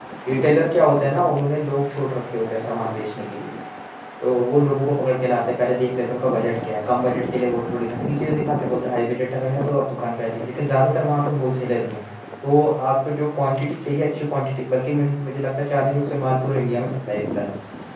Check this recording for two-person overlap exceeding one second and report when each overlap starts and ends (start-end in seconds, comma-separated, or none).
none